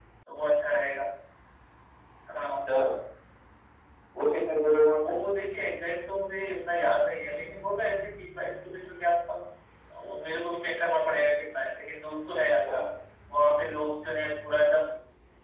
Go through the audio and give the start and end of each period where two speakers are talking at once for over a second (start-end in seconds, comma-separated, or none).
none